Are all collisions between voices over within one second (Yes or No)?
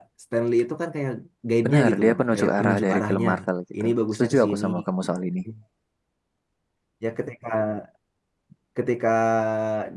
No